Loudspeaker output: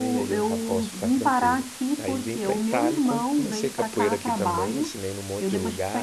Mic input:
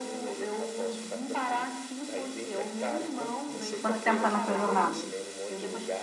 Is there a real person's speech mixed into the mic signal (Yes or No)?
Yes